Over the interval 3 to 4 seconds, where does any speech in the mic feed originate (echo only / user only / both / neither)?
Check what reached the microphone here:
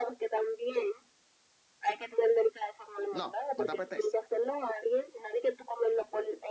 both